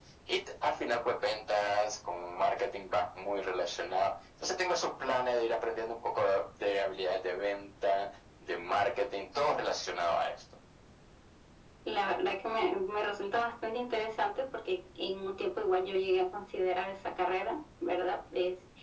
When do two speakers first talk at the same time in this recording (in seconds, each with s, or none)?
none